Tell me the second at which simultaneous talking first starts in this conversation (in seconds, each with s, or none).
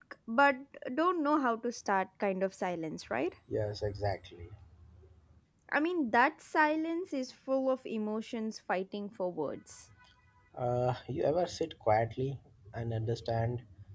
none